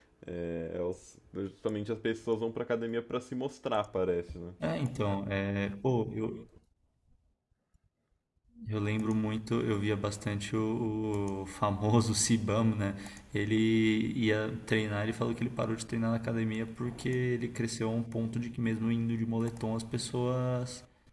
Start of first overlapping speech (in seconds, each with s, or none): none